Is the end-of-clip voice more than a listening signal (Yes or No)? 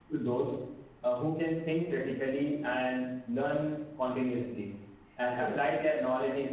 No